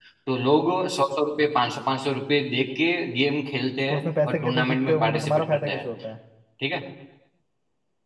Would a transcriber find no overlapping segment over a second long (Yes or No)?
No